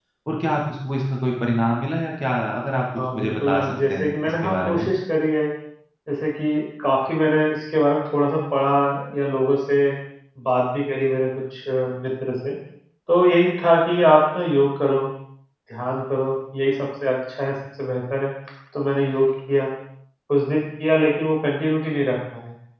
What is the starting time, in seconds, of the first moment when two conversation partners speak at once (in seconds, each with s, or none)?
3.0 s